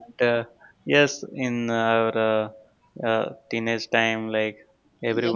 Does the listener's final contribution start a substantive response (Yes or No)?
Yes